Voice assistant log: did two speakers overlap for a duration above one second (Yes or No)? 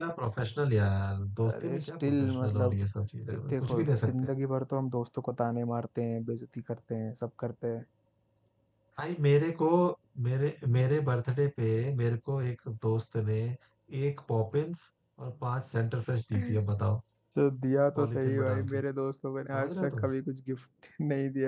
Yes